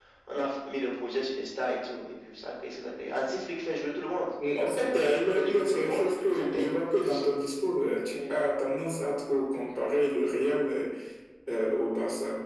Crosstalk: present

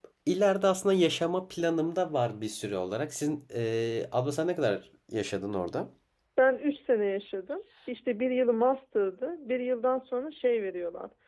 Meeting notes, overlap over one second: none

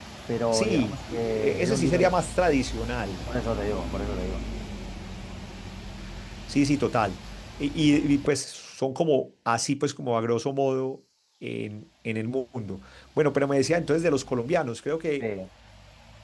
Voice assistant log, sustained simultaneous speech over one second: present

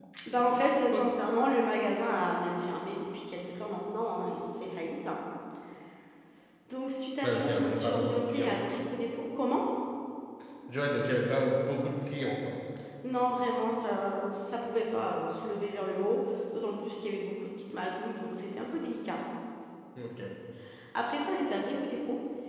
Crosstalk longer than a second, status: present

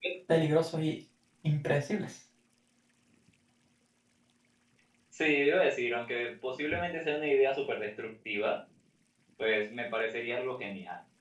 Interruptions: none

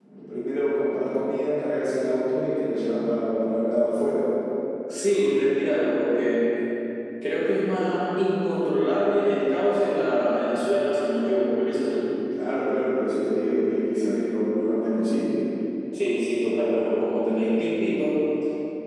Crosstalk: none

